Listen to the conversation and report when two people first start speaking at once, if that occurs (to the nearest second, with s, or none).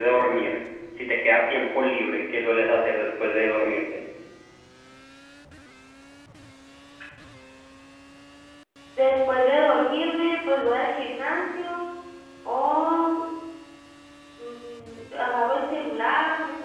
none